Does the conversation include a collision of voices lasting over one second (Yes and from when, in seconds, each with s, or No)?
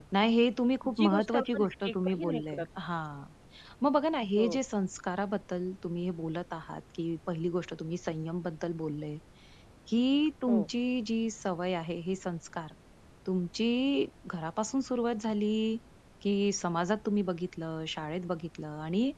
Yes, from 0.9 s